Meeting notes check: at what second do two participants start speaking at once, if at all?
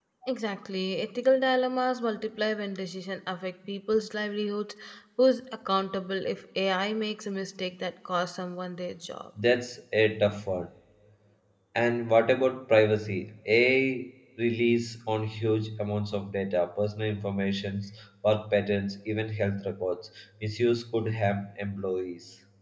none

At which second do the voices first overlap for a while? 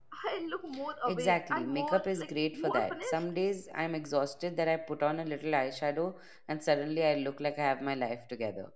1.1 s

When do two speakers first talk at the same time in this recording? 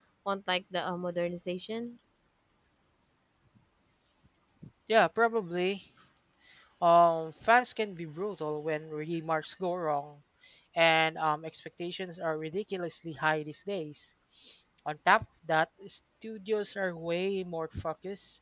none

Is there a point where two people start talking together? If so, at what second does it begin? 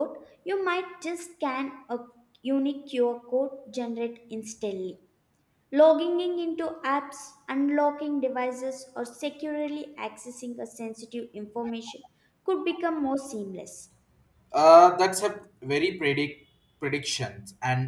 none

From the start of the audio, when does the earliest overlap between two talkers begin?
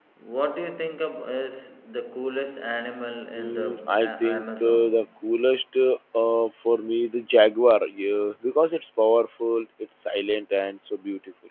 3.4 s

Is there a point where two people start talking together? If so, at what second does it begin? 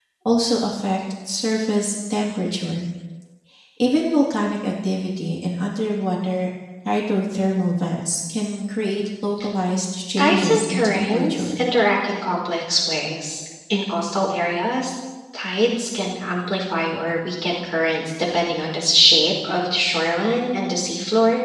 10.2 s

